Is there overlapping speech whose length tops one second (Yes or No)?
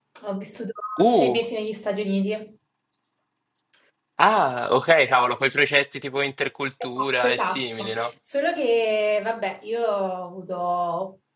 Yes